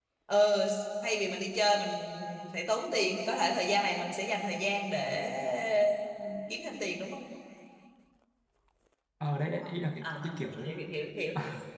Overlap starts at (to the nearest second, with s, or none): 10 s